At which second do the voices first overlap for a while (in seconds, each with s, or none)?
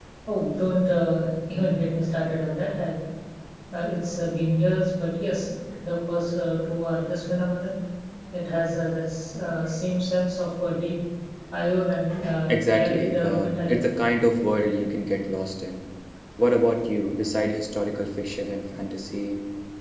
12.5 s